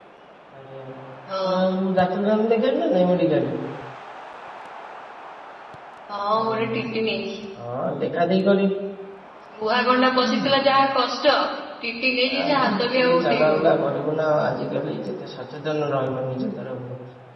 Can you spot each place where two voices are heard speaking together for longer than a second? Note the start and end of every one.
12.4-13.8

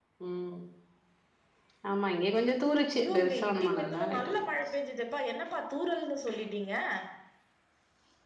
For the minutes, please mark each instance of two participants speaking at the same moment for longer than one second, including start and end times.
3.0-4.7

